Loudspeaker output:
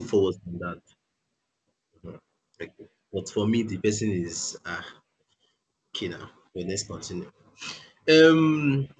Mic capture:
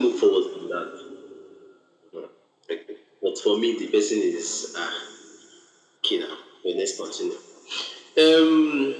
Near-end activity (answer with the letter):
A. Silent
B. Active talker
A